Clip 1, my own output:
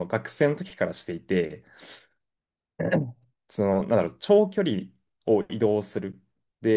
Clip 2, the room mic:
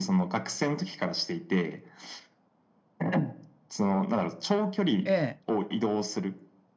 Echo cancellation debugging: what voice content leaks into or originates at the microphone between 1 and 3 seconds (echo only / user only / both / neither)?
echo only